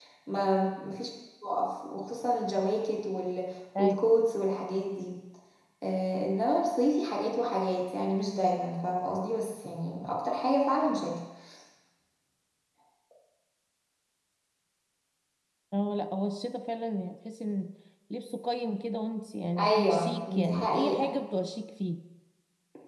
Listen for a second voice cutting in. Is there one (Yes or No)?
Yes